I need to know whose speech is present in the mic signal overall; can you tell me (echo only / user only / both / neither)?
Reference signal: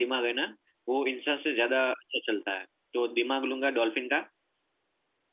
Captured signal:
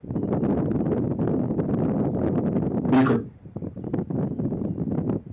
user only